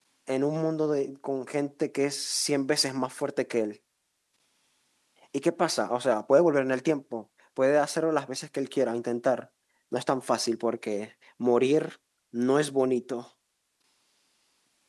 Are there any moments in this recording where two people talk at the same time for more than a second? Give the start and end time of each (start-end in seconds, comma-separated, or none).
none